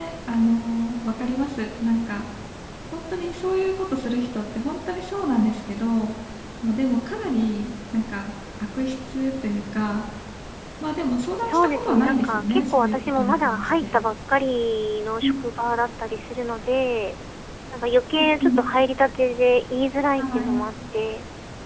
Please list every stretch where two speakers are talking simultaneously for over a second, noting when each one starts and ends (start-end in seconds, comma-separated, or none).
11.4-14.0